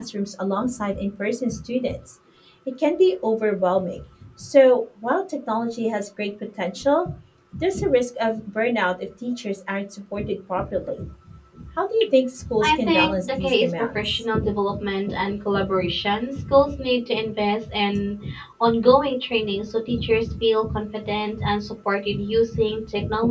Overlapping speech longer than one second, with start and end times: 12.6-14.2

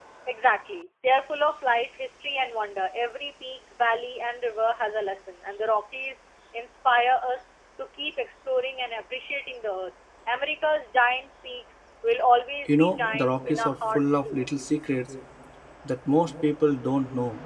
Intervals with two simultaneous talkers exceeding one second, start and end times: 12.6-14.4

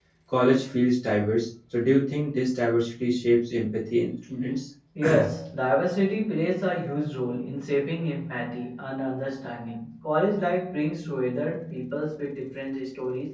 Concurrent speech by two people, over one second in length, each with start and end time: none

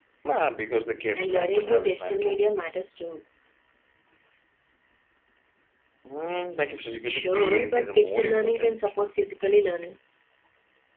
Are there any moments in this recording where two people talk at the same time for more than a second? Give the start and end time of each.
1.1-2.4, 7.0-8.9

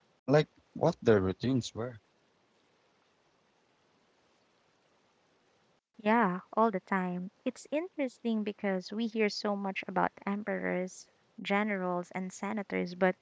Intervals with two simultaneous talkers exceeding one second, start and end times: none

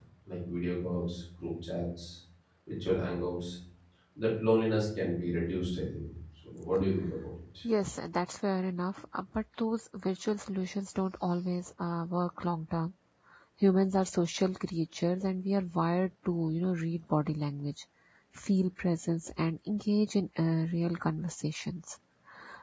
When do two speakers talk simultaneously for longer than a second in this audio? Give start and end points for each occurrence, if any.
none

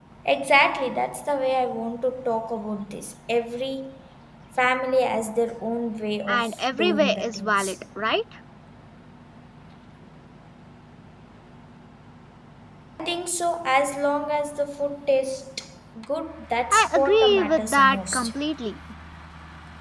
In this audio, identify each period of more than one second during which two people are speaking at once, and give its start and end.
6.3-7.7, 16.7-18.3

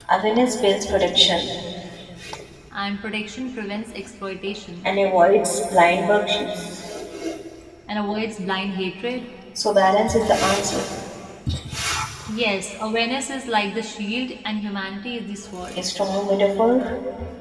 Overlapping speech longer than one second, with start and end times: none

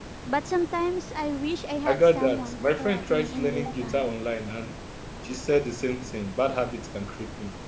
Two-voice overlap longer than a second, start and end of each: 1.9-4.1

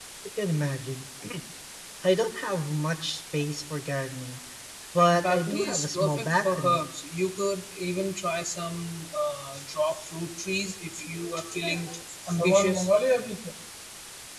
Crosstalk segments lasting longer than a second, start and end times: 5.1-6.8

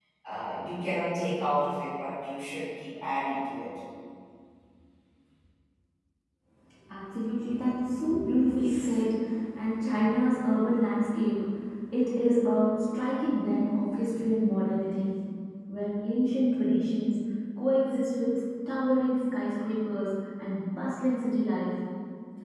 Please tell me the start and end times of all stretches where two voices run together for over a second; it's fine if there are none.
none

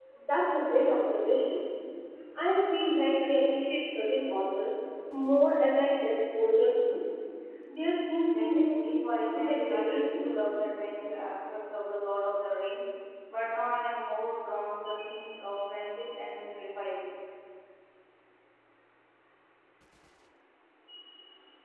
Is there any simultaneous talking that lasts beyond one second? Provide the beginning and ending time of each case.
8.3-10.2

